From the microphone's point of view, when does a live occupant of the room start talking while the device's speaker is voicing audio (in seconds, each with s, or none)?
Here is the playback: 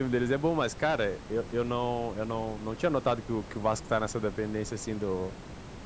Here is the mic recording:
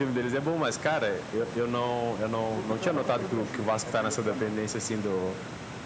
2.5 s